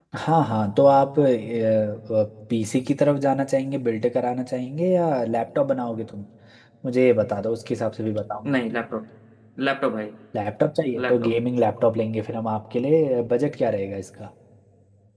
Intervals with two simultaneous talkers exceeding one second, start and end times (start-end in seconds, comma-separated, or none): none